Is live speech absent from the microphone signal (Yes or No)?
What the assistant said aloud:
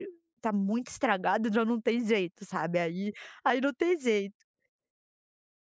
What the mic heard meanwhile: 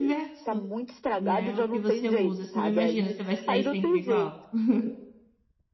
No